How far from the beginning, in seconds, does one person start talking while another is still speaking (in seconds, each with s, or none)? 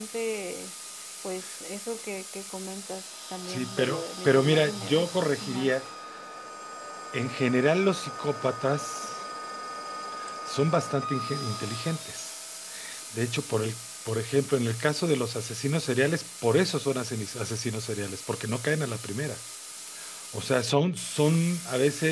3.5 s